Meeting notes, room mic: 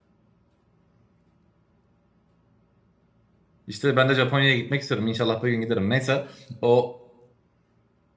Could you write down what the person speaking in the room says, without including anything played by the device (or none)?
İşte ben de Japonya'ya gitmek istiyorum. İnşallah bir gün giderim. Neyse o